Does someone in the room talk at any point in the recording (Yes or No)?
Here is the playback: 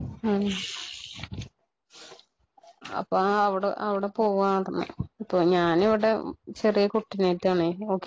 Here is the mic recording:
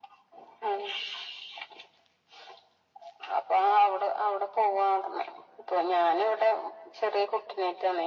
No